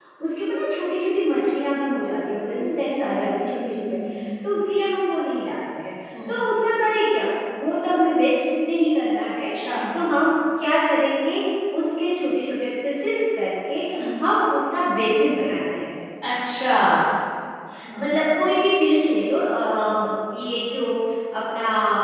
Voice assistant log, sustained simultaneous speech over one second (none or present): present